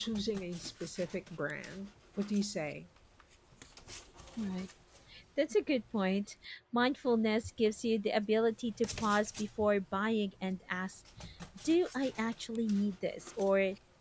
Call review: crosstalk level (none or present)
none